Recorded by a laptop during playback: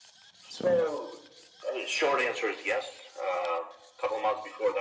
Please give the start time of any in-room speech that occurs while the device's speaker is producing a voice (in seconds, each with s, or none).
0.5 s